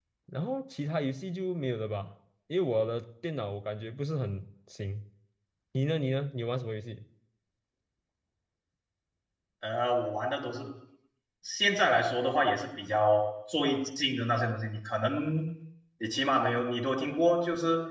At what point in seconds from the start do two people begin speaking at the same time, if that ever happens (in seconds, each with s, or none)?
none